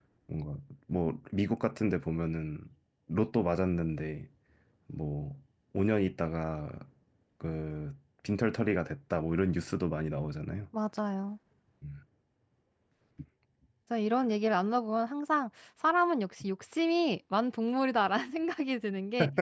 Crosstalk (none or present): none